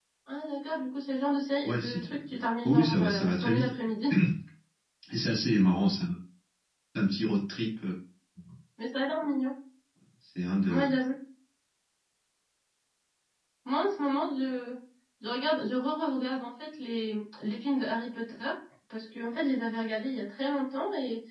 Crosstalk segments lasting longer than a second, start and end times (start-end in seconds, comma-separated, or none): 1.6-3.7